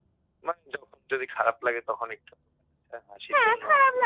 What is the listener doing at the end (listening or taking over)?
taking over